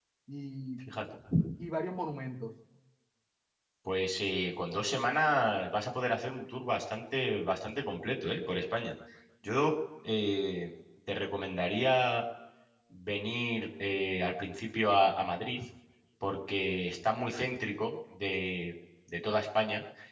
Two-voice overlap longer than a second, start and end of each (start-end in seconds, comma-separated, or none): none